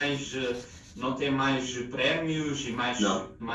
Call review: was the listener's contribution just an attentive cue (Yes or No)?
Yes